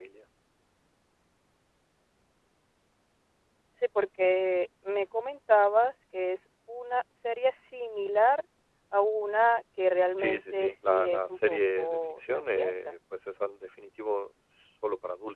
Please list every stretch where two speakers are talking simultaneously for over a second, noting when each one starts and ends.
10.2-13.0

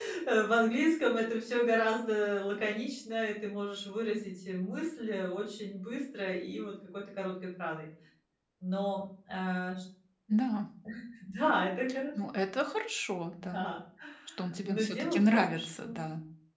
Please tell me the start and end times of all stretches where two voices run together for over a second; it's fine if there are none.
14.6-16.0

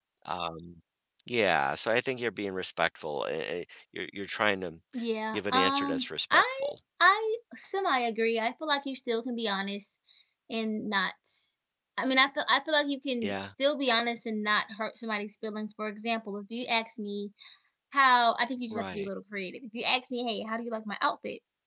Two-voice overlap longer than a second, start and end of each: 5.3-6.7

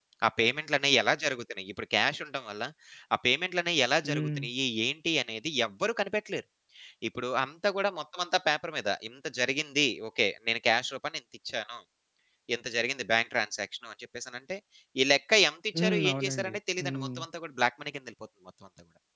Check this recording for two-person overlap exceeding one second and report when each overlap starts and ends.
15.8-17.2

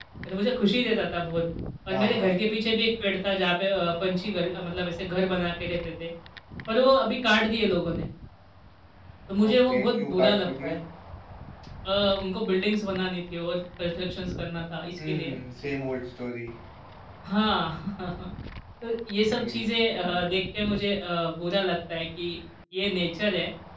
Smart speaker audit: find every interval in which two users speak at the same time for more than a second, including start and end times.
9.5-10.8

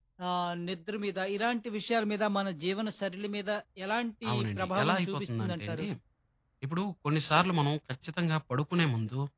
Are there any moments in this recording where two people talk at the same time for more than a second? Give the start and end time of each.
4.3-5.8

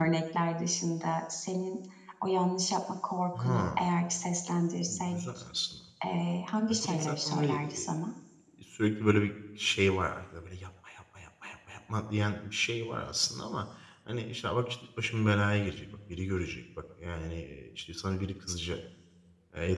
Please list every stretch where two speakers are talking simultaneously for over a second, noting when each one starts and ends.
6.7-7.9

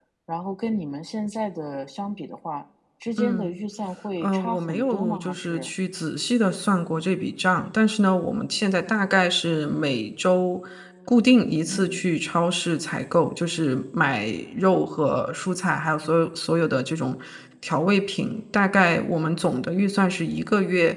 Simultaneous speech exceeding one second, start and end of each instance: 4.2-5.7

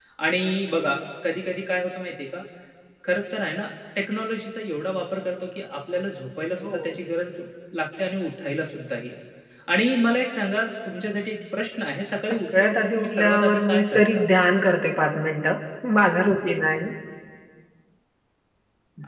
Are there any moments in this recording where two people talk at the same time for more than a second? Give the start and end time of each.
12.2-14.2

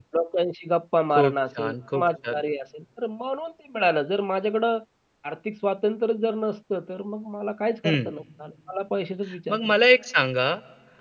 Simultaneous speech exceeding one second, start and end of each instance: 1.1-2.4

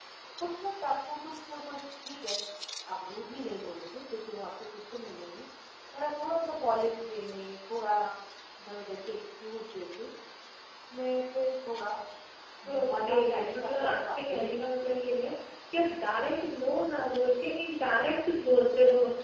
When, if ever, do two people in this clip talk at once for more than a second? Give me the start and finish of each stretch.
12.7-14.5

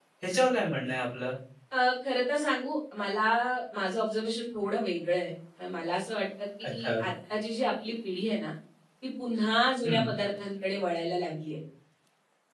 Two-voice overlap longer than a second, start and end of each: none

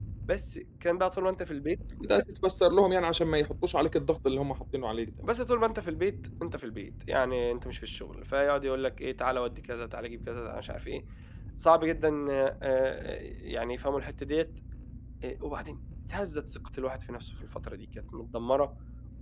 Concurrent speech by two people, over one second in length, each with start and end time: none

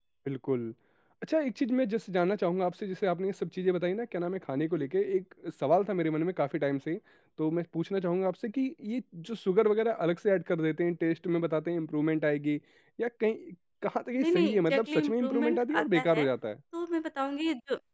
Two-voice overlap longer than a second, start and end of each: 14.2-16.2

